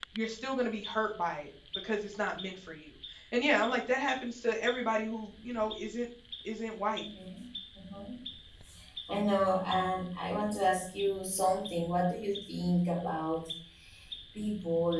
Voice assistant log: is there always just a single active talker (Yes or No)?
Yes